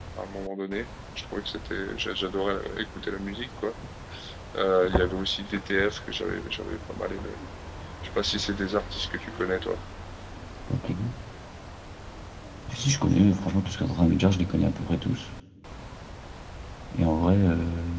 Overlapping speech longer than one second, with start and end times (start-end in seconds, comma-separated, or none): none